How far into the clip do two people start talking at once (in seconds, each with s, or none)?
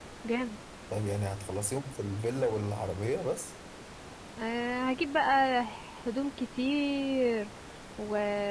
none